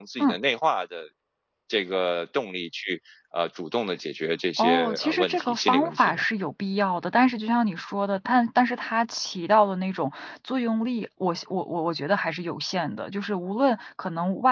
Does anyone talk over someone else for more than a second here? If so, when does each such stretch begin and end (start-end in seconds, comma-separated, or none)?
4.6-6.2